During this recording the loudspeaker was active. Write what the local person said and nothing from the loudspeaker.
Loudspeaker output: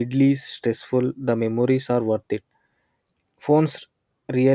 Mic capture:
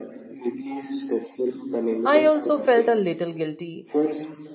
I also felt a little guilty

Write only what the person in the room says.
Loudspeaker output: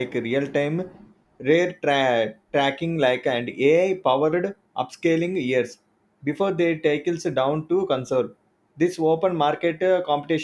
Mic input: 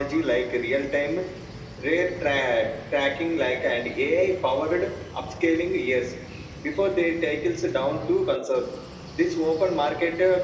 none

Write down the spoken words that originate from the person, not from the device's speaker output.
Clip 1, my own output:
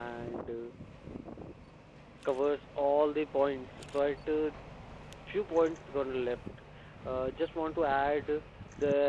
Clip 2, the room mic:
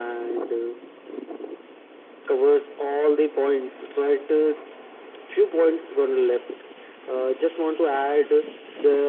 none

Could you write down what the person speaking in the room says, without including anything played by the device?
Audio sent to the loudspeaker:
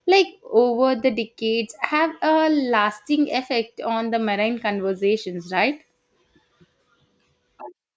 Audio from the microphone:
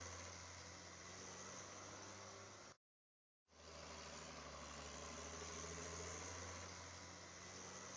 none

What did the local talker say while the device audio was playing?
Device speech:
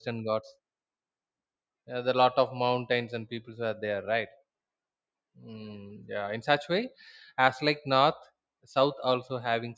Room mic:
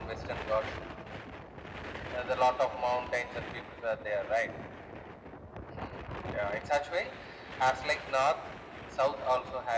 none

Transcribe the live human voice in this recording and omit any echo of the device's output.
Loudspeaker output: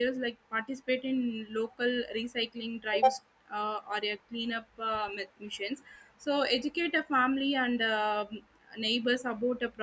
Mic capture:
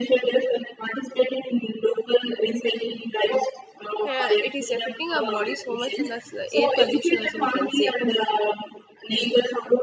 uh, it is affecting our body so much from the s- air pollution also we can say

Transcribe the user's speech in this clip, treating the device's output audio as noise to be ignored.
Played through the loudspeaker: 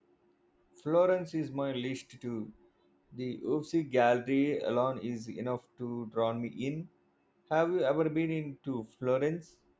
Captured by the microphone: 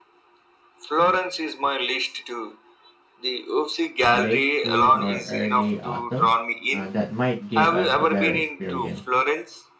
late spring or early autumn. Uh, that might give us a better experience.

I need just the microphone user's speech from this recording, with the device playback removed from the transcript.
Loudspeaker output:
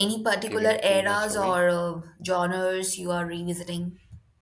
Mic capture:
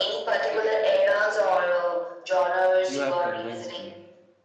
You have convinced me.

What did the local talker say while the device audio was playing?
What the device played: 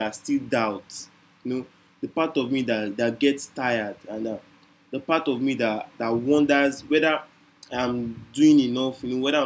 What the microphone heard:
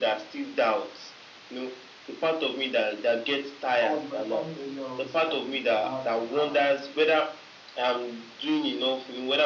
I was with my family earlier on today, and we, we had uh,

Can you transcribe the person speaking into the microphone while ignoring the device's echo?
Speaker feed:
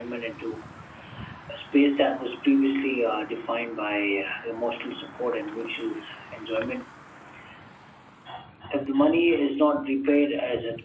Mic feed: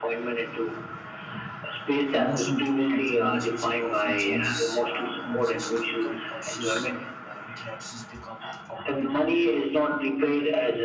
The emotional tone of the relationship often changes. Uh, conversations become cautious and uh, interactions become awkward.

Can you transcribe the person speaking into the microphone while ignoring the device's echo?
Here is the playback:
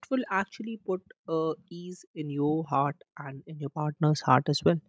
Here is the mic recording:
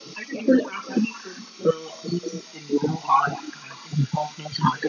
none

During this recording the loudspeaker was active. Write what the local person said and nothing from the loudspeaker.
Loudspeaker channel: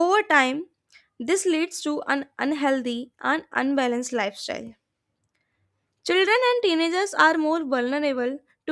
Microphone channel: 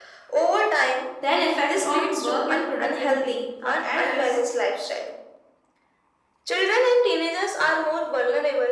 then effect on work and productivity for adults

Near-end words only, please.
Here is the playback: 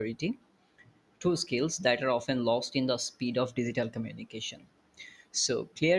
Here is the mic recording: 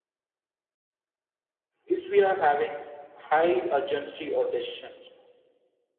if we are having high urgency or decisions,

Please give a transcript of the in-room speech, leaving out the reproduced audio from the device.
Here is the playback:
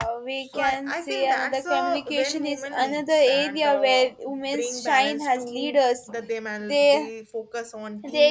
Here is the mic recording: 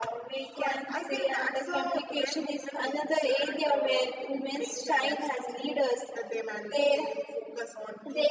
none

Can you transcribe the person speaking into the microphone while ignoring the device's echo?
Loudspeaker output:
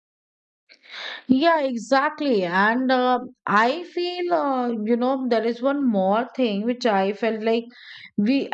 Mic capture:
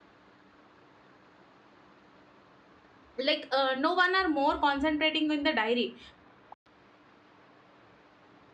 like uh, no one are more concentrating in the diary

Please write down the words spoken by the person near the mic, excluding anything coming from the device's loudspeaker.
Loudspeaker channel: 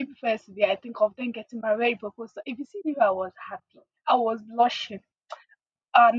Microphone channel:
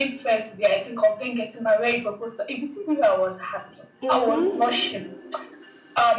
Mm-hmm.

